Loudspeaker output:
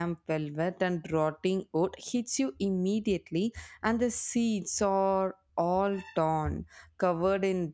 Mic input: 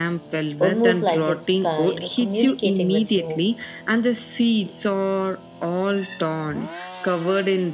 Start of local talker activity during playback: 0.6 s

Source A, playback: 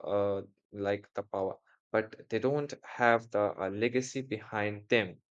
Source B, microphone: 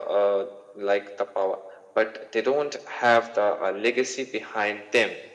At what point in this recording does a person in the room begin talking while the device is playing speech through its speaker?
none

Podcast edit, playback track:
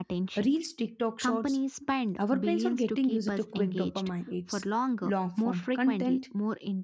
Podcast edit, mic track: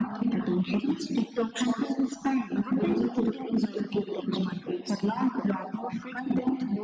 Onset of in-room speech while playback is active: none

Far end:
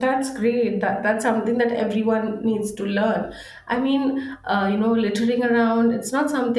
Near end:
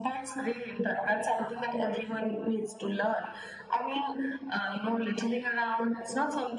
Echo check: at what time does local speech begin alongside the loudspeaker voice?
none

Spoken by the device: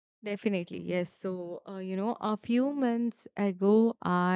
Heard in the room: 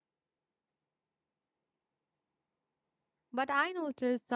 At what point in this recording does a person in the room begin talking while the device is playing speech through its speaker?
3.3 s

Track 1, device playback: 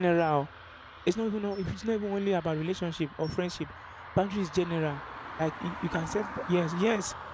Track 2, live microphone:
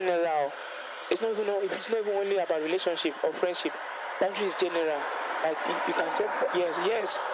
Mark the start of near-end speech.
none

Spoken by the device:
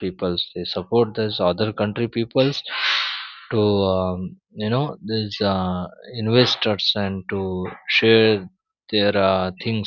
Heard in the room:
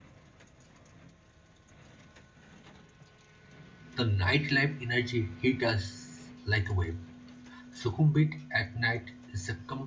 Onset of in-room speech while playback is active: 4.0 s

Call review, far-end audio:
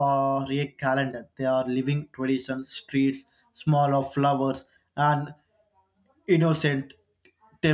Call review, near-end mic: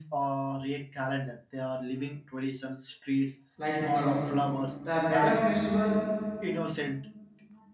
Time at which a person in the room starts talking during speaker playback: 3.6 s

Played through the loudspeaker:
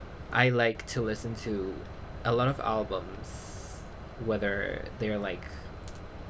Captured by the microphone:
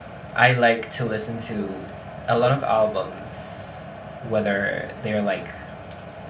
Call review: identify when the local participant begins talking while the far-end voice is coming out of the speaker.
none

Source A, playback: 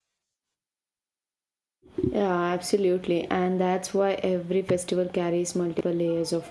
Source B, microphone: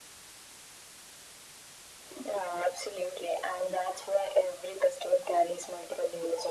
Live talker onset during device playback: none

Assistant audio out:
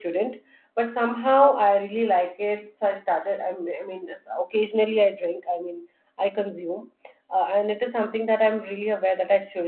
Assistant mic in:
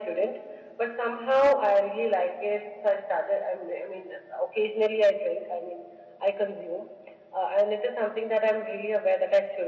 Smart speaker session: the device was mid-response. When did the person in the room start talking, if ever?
none

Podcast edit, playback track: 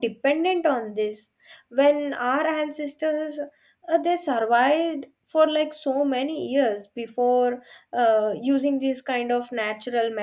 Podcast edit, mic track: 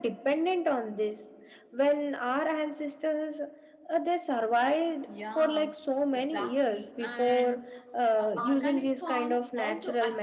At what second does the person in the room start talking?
5.1 s

